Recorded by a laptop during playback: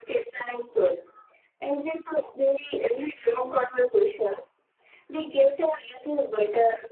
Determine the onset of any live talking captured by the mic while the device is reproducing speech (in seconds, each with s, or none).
none